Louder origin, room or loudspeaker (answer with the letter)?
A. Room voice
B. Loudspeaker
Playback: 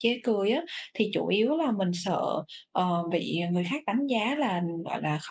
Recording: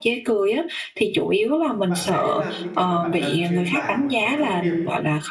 B